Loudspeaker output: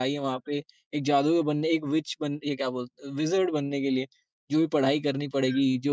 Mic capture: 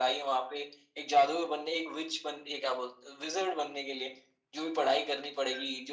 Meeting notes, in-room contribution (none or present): none